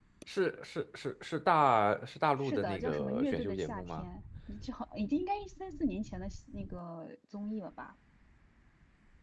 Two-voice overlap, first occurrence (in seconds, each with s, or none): 2.4 s